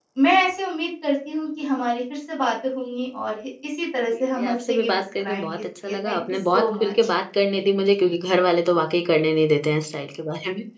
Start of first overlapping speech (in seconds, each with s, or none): 4.1 s